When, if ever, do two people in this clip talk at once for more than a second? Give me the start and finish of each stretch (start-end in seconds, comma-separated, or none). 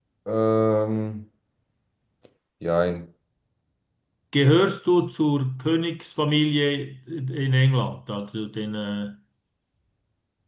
none